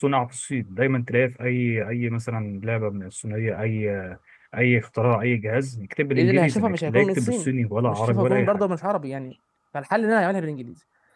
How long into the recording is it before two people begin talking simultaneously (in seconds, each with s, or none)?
6.2 s